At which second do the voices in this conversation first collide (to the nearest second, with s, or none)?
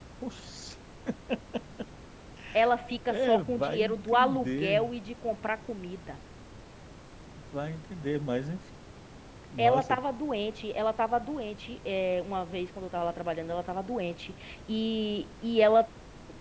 3 s